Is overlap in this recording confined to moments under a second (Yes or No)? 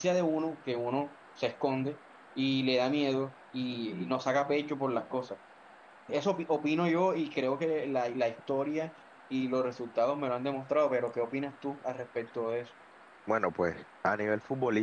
Yes